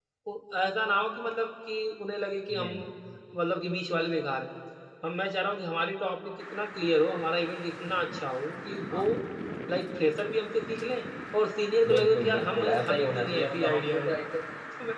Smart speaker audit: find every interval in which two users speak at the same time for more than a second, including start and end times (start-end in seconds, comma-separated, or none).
11.9-14.1